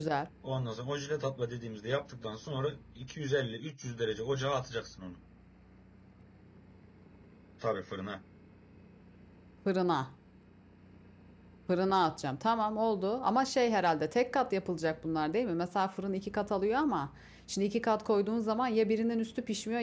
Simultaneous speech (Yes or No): No